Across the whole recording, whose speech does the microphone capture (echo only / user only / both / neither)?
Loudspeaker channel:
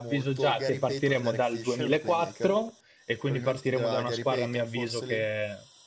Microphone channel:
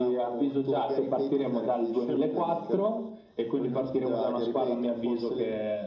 echo only